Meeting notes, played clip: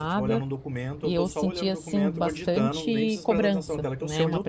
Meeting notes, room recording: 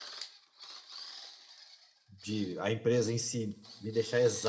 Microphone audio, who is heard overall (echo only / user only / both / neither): user only